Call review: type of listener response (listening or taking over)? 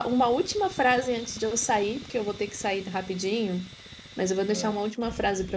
listening